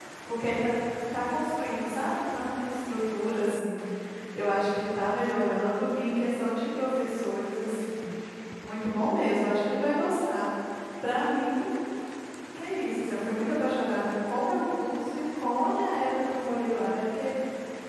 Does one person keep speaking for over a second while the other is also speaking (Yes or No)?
No